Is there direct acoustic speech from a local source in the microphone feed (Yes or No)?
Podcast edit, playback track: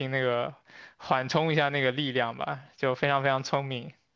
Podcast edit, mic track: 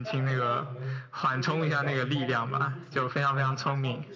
Yes